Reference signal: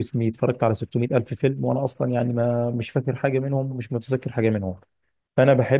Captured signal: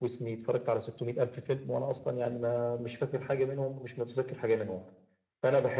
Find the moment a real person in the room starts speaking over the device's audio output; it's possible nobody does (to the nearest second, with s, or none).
none